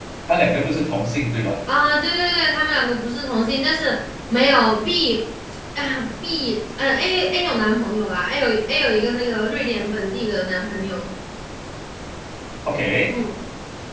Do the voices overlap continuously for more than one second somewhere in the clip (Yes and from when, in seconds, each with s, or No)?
No